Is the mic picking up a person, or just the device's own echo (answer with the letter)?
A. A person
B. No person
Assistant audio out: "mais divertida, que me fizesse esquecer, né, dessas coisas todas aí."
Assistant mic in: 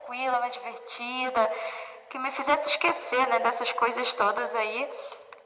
B